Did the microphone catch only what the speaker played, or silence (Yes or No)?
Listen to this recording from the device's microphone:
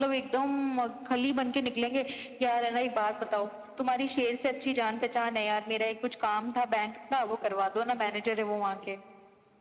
Yes